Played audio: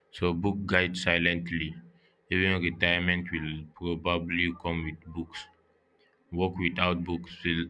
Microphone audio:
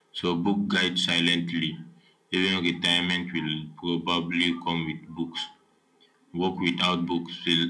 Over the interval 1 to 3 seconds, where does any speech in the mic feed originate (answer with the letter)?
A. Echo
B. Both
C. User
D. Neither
A